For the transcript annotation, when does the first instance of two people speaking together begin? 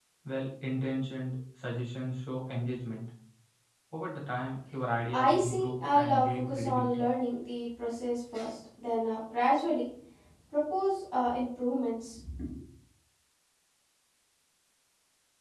5.1 s

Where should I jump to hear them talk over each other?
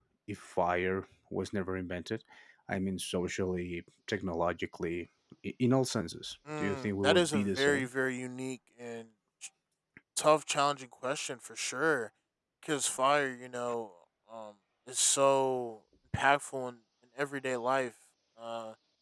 6.5 s

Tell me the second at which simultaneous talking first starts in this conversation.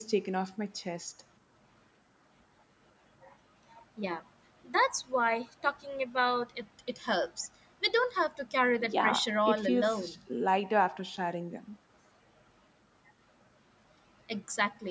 8.8 s

